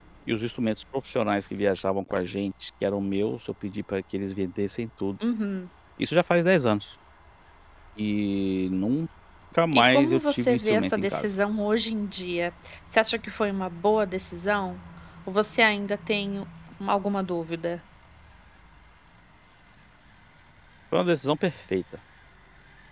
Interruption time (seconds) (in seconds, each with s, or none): 9.7 s